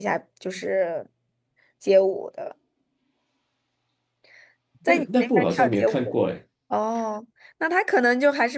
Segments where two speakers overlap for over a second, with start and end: 4.9-6.1

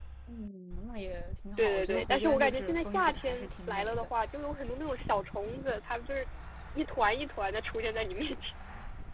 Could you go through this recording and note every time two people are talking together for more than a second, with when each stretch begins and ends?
1.6-4.1

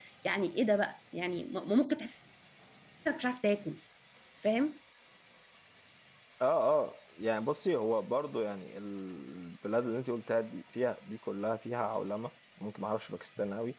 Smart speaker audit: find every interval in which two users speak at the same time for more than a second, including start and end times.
none

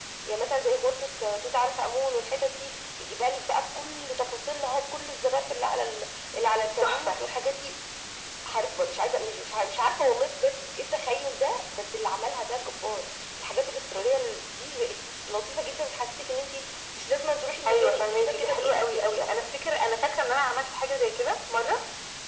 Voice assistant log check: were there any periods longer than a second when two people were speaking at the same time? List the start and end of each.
17.7-19.4

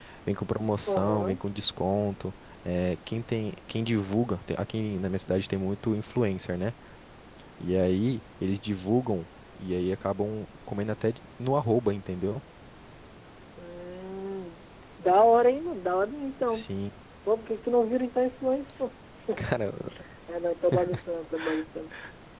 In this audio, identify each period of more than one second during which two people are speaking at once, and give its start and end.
none

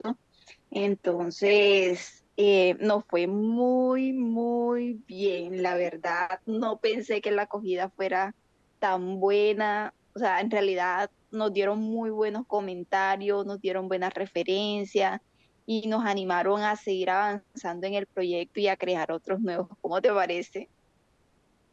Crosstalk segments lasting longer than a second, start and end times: none

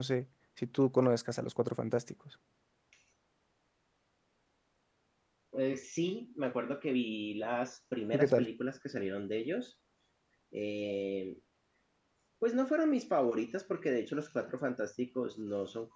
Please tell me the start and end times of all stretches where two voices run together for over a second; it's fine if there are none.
none

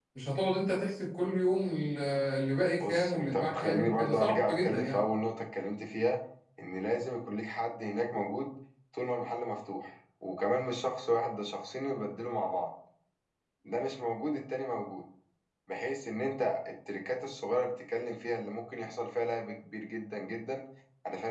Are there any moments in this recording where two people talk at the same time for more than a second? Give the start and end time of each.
2.8-5.0

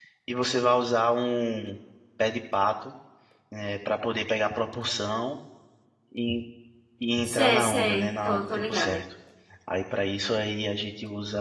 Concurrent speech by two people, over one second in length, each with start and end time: 7.3-9.0

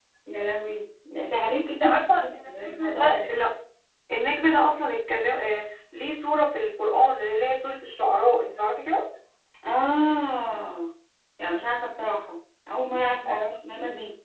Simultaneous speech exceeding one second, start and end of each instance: 1.8-3.3

